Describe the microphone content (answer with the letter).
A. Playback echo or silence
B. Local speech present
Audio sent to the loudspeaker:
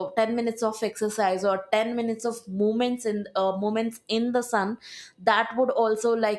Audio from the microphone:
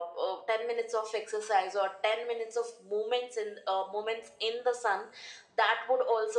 A